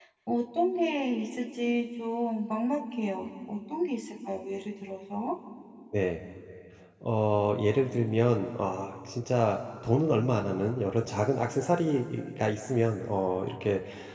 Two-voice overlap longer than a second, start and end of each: none

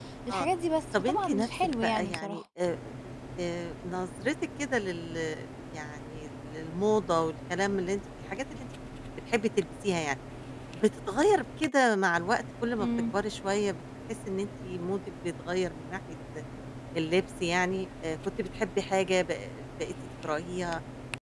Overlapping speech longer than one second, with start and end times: 0.9-2.4

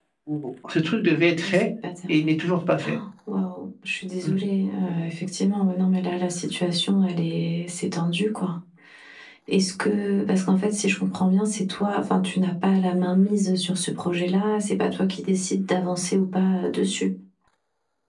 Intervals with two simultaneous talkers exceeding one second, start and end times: none

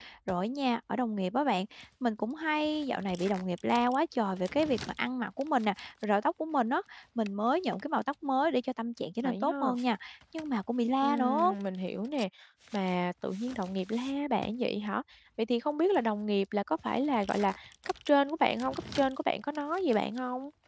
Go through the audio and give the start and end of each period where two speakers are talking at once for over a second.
none

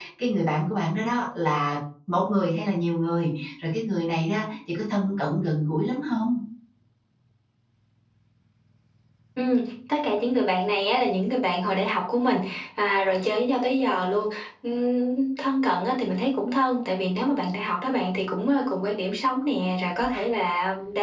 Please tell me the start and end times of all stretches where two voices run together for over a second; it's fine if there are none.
none

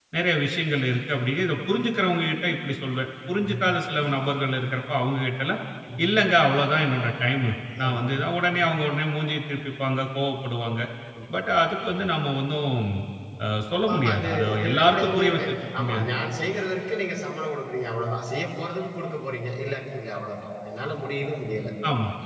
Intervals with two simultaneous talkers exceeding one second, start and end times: 13.8-16.1

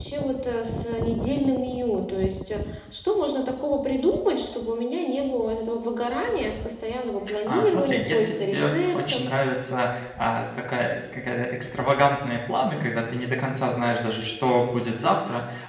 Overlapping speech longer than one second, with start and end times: 7.5-9.2

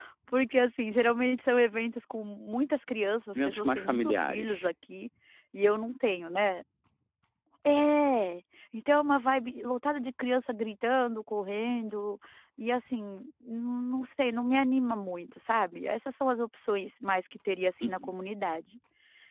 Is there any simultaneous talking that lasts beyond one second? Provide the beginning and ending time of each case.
3.5-4.7

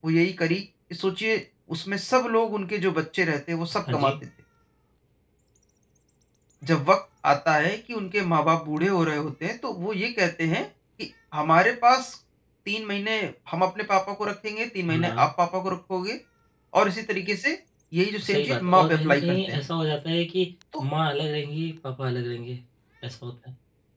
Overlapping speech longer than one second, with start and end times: 18.2-19.7

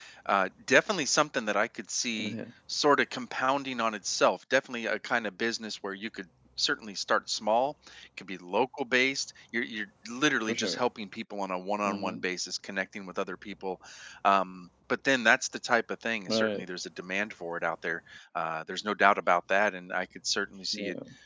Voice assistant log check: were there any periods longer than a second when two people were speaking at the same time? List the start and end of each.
none

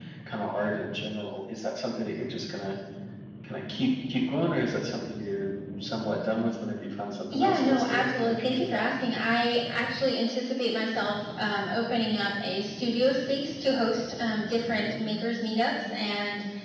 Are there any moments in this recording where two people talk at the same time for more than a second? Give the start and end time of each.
7.3-8.8

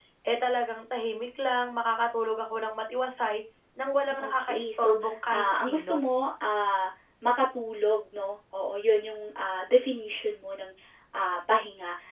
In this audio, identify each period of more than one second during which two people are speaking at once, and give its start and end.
4.2-6.1

